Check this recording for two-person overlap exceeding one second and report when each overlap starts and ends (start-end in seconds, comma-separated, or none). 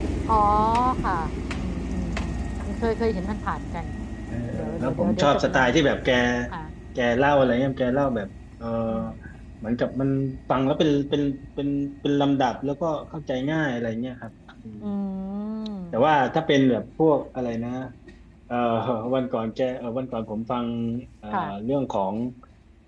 4.5-5.8